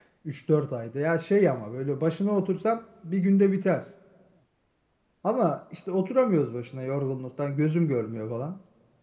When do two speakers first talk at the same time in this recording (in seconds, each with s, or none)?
none